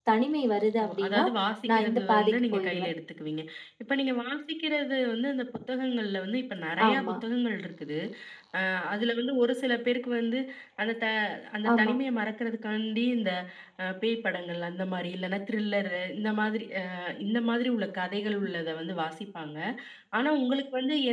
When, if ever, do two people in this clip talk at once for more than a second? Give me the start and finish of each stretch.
1.7-2.9

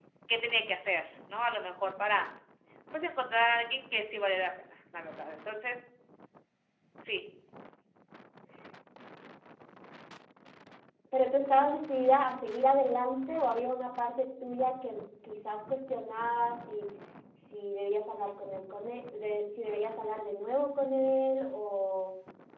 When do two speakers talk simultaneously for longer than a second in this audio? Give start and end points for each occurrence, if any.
none

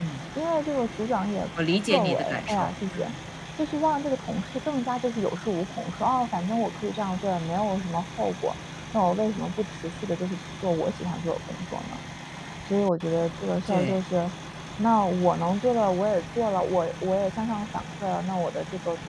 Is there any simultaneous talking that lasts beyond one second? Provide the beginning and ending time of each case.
1.7-3.0

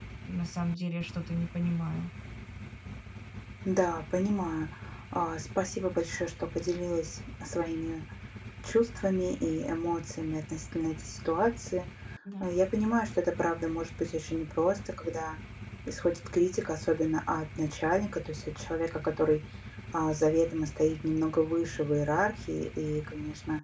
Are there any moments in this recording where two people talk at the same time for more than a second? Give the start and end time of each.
none

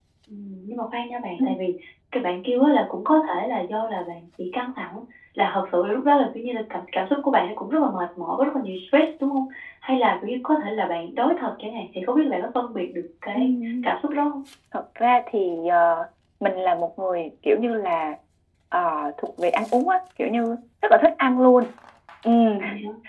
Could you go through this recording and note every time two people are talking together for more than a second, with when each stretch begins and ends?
none

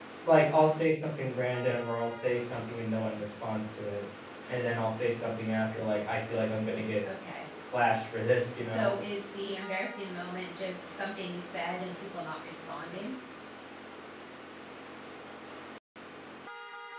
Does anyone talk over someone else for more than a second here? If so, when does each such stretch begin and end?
none

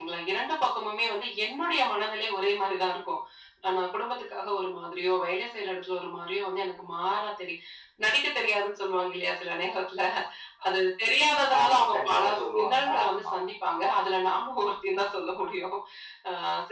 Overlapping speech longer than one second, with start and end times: 11.6-13.5

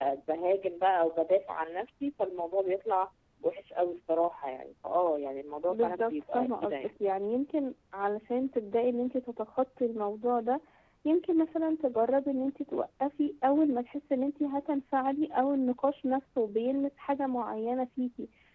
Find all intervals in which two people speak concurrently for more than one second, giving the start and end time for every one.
5.7-6.9

